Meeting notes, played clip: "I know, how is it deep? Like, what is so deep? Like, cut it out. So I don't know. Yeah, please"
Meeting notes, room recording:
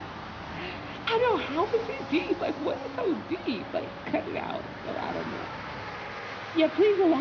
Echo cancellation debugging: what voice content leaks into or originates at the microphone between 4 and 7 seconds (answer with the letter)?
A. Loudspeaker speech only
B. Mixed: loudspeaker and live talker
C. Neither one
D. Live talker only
A